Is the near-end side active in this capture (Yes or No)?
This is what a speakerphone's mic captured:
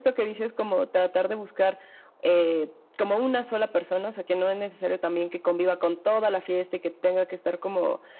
No